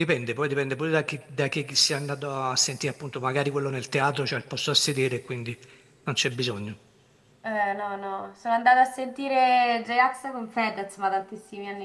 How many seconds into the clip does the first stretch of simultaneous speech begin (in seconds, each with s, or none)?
none